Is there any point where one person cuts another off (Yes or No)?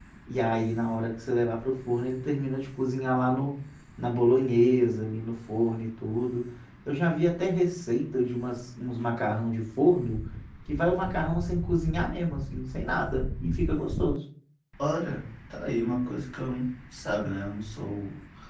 No